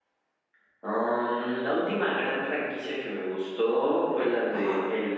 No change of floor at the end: Yes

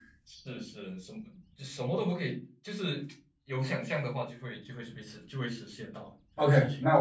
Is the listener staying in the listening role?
No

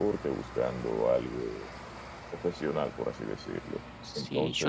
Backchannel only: No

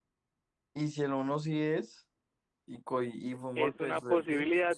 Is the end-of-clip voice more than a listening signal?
Yes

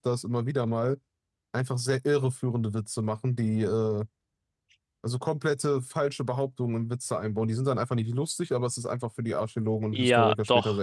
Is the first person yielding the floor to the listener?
Yes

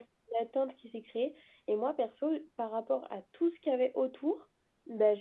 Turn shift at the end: No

